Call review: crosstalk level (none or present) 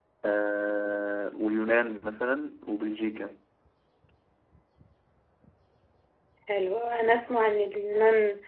none